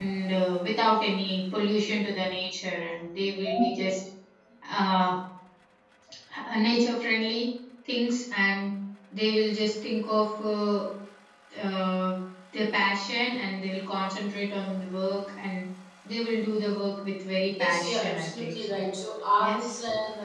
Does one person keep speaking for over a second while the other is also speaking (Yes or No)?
Yes